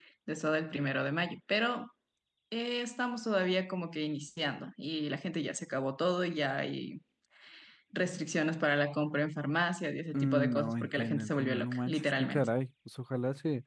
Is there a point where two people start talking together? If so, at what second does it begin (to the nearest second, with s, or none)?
10 s